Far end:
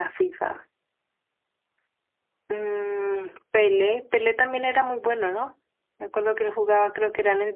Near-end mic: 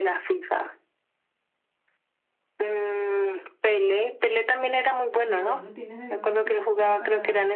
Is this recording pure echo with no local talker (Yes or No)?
No